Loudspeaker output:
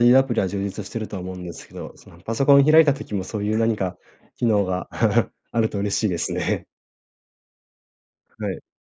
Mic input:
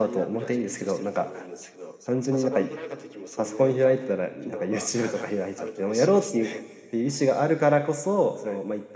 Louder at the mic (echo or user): user